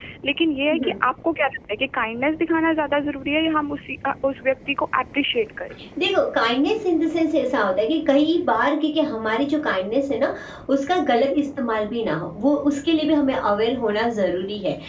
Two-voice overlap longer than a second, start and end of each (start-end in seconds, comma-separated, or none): none